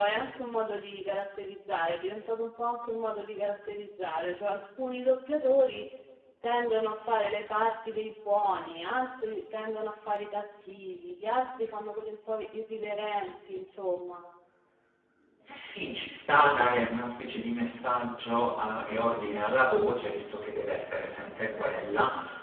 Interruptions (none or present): none